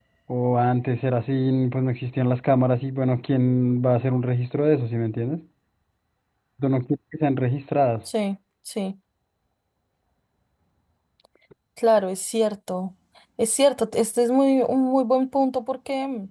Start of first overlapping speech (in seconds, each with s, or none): none